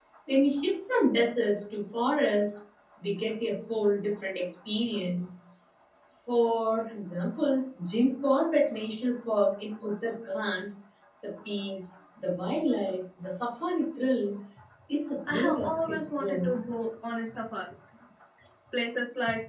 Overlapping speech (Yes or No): Yes